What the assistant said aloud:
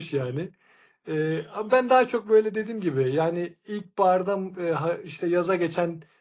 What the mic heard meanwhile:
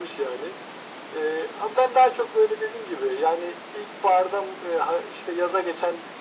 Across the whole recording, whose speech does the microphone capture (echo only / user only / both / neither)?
echo only